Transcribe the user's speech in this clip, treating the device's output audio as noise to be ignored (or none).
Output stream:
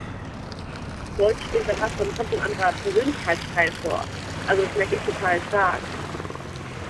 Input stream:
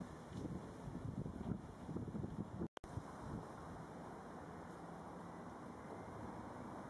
none